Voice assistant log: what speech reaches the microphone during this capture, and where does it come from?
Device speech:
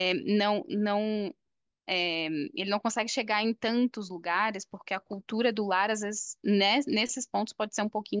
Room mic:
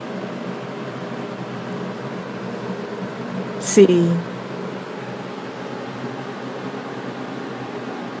user only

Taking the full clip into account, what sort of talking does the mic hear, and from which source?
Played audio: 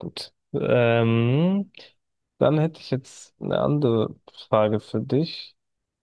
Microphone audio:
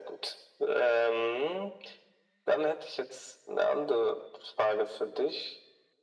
echo only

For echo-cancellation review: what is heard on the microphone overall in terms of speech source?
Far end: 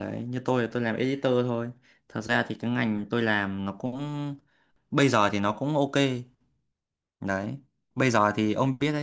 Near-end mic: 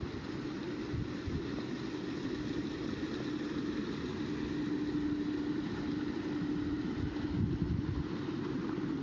neither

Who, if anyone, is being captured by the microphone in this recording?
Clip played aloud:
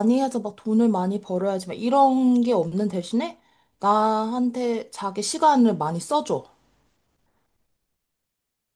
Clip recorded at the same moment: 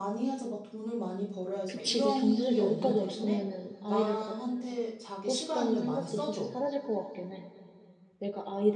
both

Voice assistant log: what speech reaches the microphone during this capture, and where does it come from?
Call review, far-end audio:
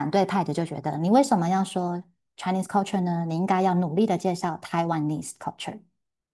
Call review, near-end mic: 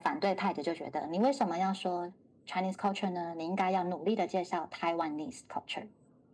echo only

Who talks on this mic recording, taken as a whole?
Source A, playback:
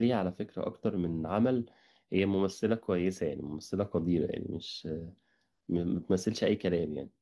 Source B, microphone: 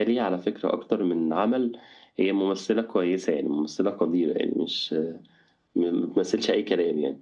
echo only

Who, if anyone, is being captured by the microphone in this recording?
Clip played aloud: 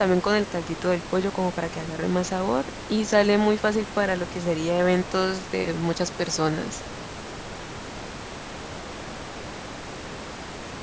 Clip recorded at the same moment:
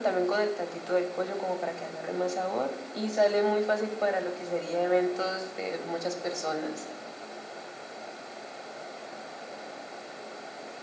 echo only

